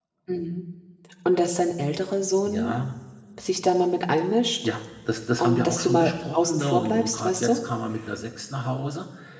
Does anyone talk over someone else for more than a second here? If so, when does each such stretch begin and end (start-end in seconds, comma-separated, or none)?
5.4-7.6